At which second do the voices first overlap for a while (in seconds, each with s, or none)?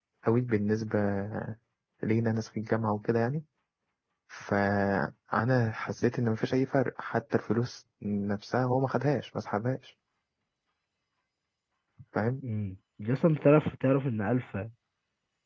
none